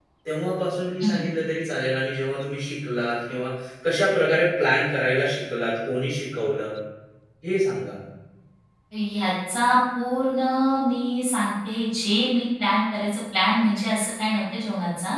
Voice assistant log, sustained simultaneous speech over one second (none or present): none